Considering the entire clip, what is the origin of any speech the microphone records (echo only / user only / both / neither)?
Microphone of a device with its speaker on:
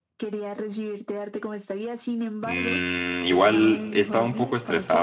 both